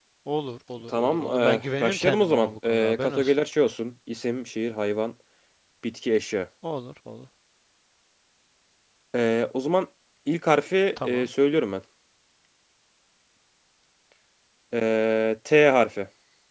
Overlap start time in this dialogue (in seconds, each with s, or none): 0.9 s